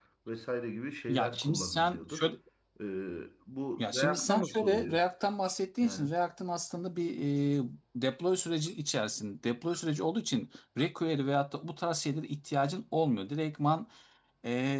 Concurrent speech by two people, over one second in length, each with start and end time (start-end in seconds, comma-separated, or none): 1.1-2.3, 3.8-5.0